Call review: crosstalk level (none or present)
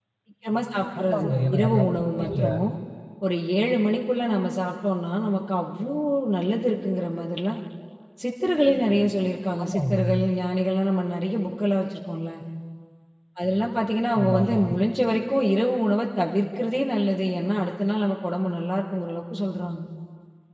present